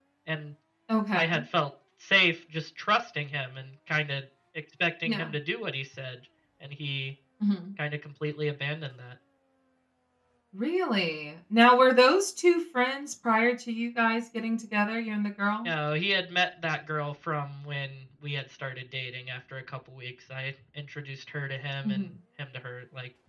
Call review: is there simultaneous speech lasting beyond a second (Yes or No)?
No